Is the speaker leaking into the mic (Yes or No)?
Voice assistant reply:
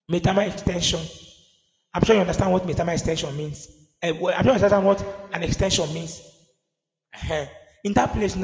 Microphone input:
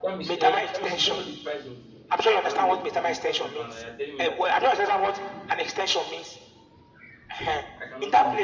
Yes